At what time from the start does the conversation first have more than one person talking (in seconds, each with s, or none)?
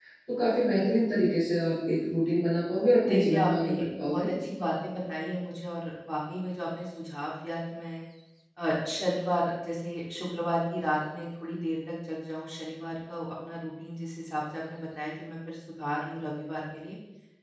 3.0 s